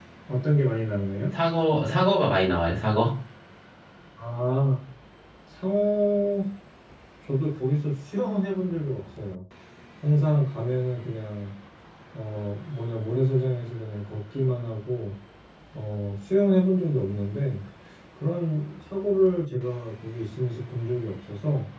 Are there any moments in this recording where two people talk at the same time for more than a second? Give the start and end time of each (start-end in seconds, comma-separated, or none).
none